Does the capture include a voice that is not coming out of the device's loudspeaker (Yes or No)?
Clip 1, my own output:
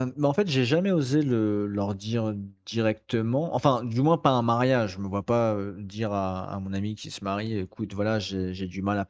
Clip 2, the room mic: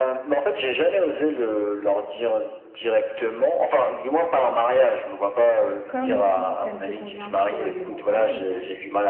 Yes